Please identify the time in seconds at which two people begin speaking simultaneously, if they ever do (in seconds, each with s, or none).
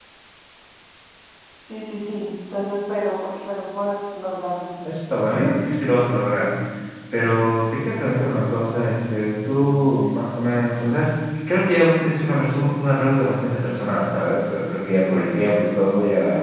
none